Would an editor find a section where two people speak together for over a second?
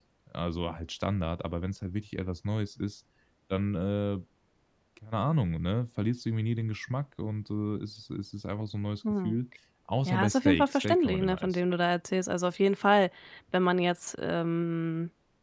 Yes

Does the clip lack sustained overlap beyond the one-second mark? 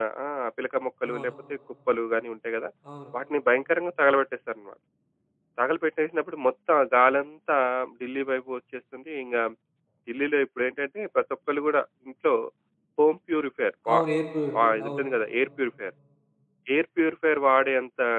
Yes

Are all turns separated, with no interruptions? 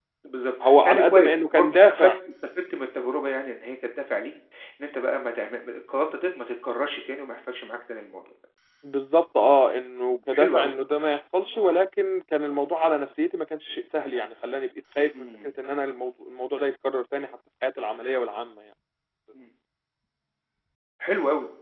No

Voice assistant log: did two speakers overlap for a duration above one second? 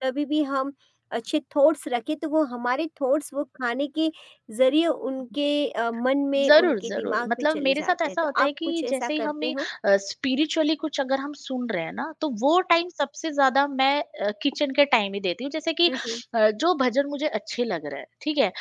Yes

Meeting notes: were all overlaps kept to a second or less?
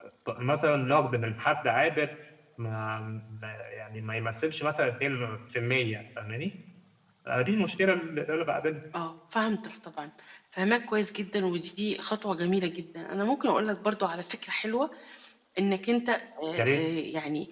Yes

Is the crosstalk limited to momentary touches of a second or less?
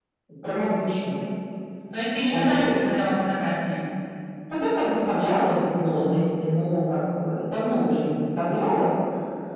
Yes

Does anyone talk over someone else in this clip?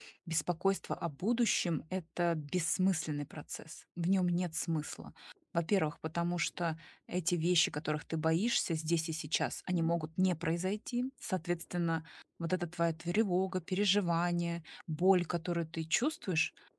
No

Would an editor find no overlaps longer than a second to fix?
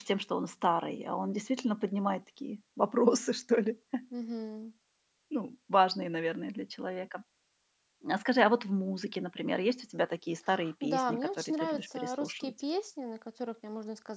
No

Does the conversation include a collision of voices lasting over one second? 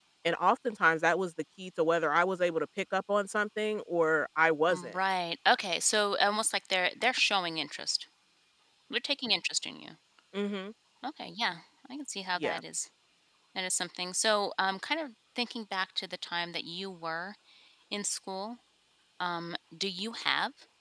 No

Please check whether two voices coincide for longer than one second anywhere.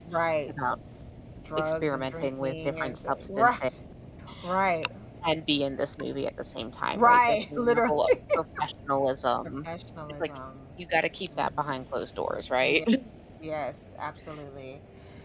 Yes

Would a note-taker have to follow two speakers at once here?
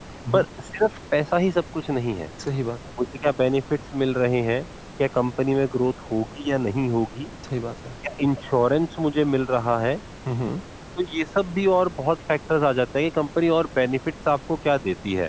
No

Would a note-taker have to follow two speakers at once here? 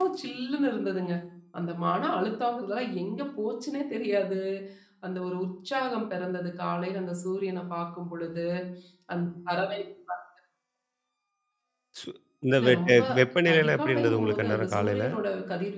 Yes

